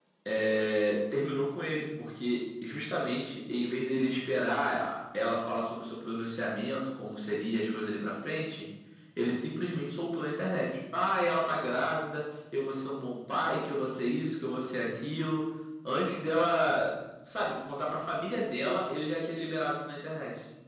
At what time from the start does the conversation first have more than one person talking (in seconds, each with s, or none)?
none